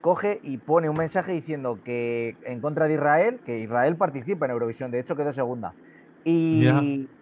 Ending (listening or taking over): listening